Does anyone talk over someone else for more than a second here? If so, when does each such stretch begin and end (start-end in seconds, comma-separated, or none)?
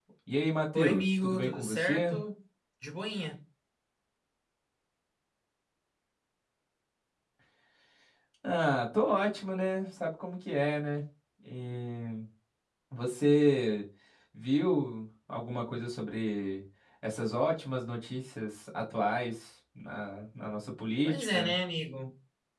0.7-2.2